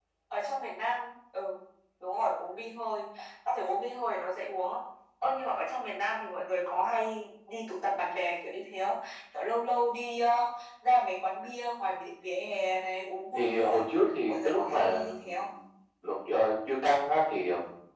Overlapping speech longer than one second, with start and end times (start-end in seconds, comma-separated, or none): 14.3-15.5